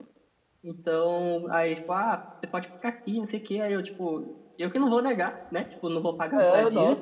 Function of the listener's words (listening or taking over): taking over